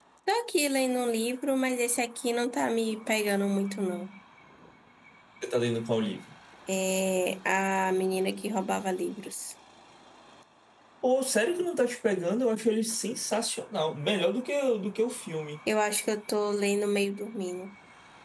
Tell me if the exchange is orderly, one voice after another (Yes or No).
Yes